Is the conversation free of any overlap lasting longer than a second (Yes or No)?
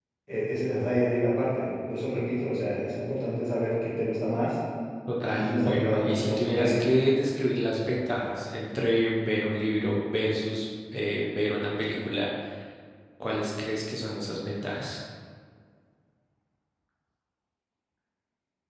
No